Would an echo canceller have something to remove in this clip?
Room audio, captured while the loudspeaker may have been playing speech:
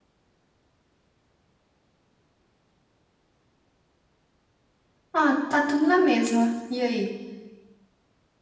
No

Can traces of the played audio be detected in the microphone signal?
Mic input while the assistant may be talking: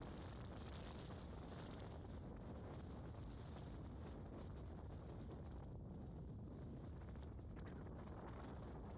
No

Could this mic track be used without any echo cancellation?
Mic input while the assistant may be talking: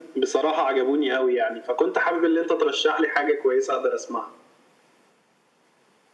No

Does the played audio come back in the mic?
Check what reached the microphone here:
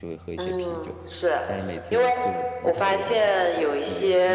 Yes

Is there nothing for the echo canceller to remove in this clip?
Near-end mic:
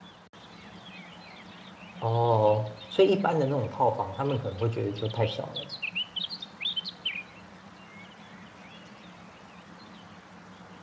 Yes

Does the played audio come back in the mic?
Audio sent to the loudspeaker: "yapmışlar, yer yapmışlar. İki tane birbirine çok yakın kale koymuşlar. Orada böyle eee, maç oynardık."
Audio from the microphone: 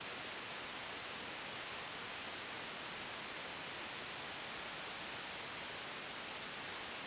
No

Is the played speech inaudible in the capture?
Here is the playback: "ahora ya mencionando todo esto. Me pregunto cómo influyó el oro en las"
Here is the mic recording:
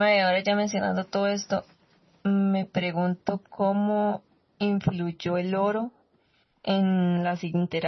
No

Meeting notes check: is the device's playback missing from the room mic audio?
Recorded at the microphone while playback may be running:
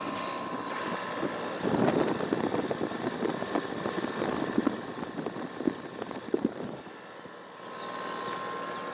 Yes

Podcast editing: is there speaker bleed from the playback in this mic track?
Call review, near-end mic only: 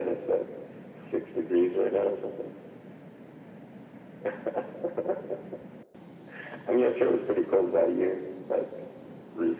Yes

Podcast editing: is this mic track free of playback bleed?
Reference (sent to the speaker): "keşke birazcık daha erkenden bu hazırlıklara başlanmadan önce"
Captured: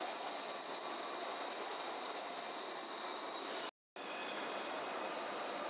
Yes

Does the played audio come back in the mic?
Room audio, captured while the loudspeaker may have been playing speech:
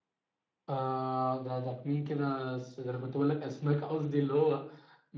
Yes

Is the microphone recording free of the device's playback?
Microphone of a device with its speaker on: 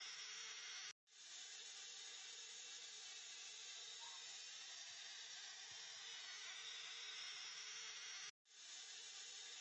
Yes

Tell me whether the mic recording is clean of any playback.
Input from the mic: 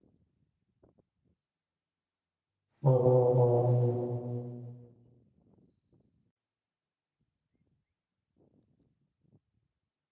Yes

